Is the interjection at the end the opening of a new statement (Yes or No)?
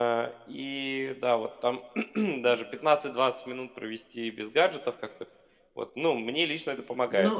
Yes